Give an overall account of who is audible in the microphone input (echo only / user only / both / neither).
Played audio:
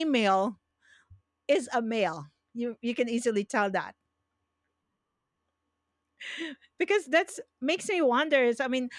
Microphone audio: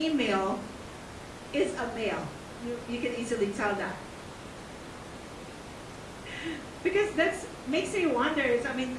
echo only